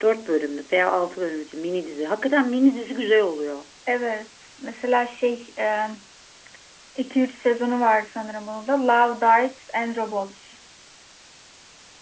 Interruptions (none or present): none